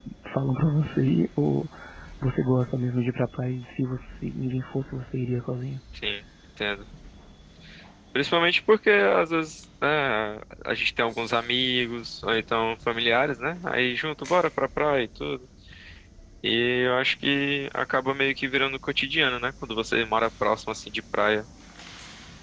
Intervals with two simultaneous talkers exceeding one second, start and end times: none

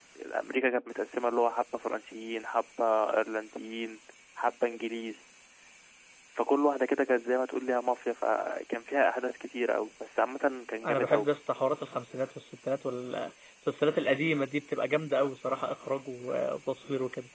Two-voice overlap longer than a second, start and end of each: none

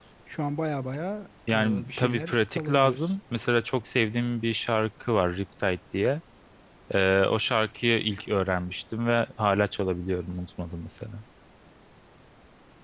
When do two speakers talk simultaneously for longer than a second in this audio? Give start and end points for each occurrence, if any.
1.5-3.1

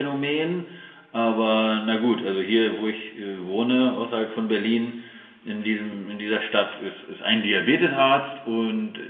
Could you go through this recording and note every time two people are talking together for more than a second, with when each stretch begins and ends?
none

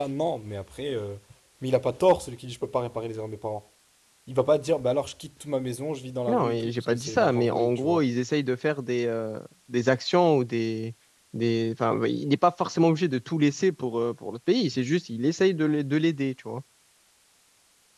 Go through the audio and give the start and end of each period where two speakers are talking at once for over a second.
6.3-8.1

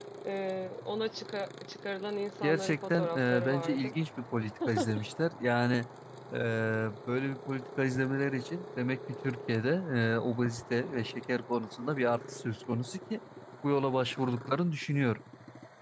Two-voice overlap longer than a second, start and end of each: 2.4-3.9

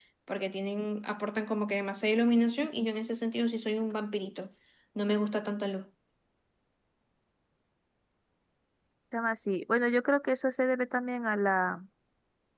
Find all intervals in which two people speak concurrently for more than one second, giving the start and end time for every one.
none

